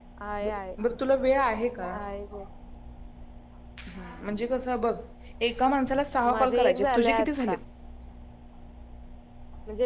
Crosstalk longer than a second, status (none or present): present